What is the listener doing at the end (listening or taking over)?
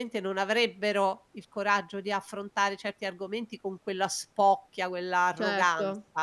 taking over